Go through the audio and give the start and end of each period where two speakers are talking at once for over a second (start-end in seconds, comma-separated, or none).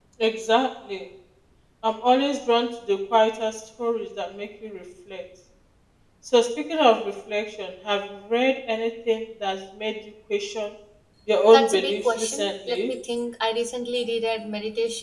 11.5-12.9